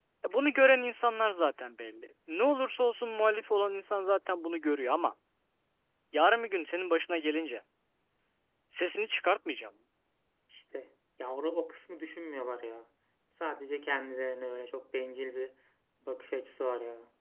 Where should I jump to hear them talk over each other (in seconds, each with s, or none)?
none